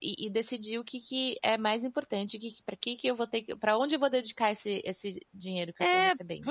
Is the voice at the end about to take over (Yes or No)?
Yes